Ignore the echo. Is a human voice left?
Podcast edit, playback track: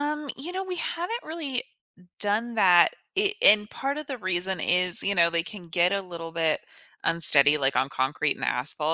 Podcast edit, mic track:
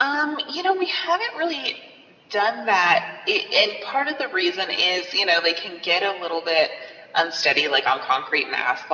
No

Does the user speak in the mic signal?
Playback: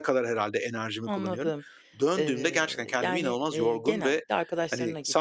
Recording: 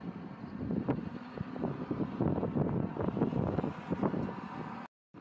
No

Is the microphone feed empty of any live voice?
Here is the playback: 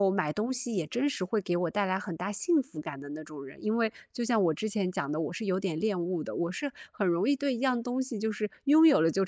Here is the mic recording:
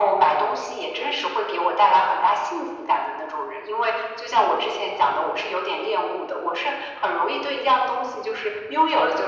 Yes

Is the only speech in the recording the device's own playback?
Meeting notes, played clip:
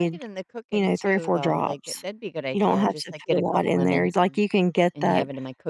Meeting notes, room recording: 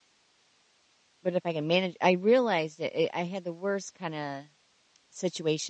No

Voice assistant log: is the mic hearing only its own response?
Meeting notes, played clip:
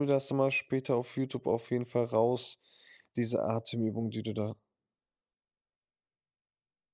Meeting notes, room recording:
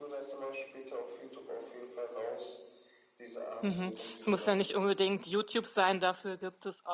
No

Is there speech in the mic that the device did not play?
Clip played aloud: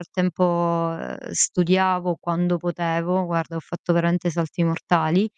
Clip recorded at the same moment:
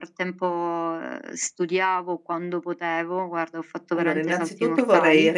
Yes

